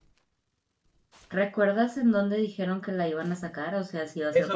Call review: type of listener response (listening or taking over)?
taking over